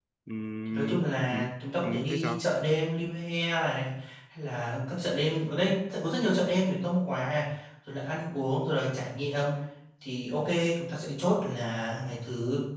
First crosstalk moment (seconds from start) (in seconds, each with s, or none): 0.7 s